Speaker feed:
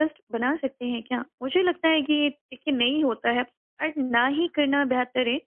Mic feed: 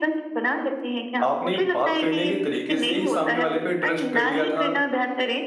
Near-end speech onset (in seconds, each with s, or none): 1.2 s